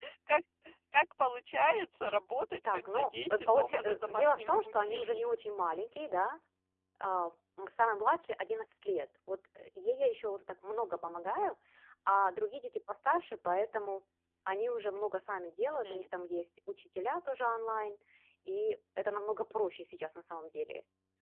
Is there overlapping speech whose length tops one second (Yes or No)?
Yes